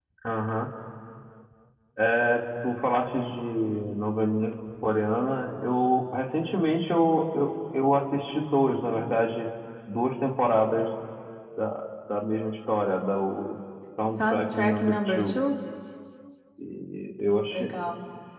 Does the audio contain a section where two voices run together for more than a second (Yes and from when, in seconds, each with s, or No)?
Yes, from 14.1 s